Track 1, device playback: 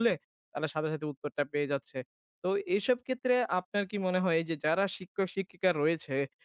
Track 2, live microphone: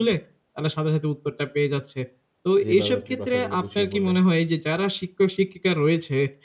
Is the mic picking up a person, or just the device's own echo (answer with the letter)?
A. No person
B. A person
B